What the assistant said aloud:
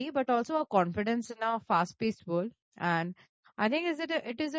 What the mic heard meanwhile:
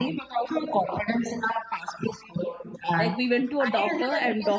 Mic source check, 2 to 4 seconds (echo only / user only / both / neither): both